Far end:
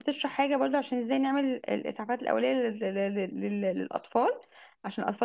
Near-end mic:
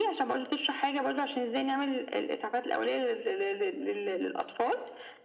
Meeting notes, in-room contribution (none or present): none